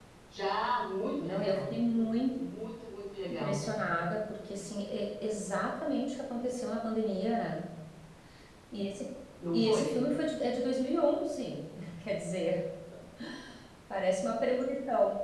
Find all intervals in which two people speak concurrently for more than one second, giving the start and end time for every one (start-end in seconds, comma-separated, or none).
none